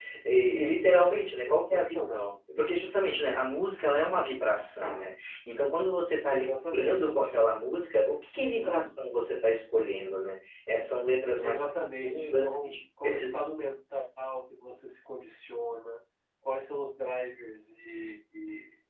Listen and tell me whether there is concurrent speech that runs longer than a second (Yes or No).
Yes